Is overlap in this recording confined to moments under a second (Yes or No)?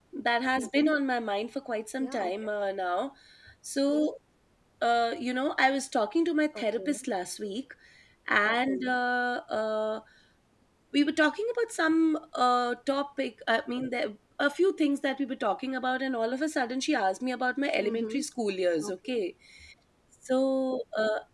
Yes